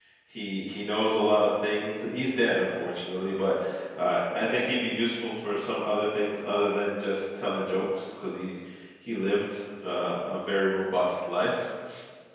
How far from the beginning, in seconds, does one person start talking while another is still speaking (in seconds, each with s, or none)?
none